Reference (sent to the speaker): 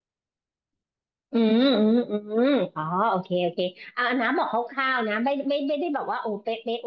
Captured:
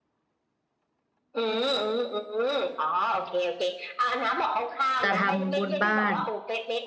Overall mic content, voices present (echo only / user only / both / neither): both